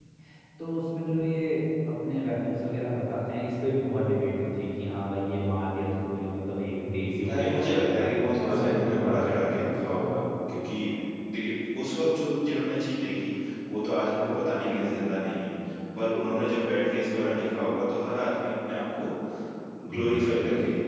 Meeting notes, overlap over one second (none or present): present